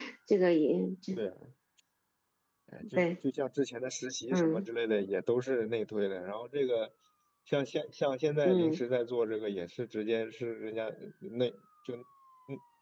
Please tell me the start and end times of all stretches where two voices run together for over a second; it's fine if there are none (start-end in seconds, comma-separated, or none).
none